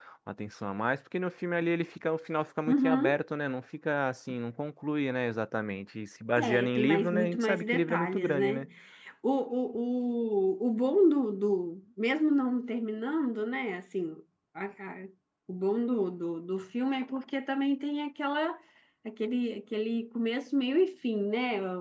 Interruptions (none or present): present